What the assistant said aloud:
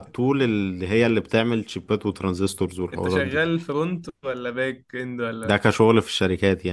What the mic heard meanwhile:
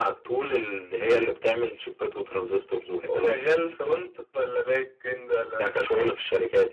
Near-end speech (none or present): none